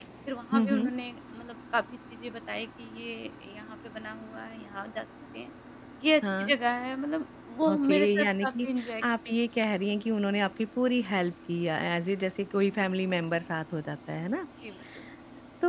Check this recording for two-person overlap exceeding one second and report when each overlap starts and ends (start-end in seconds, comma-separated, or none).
7.7-9.0